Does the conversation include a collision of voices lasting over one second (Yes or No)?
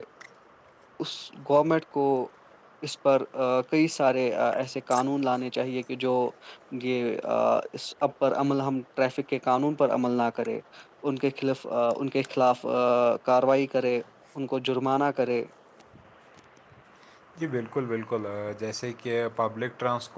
No